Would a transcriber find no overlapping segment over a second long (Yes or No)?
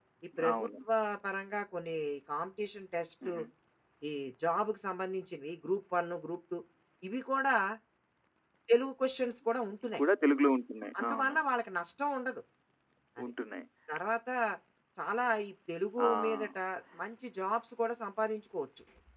Yes